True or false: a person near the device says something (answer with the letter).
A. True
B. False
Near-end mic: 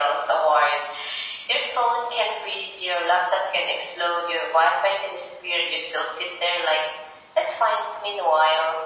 B